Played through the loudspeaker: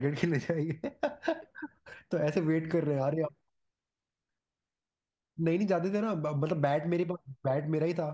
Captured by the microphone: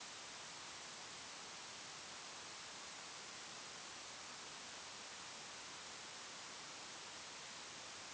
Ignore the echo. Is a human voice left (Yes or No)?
No